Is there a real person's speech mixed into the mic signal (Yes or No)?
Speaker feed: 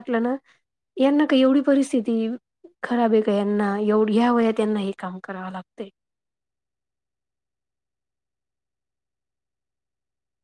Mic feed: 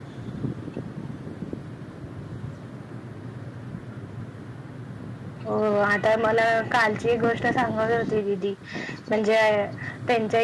Yes